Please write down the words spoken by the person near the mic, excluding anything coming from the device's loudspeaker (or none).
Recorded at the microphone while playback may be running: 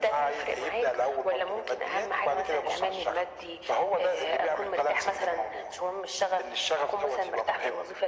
none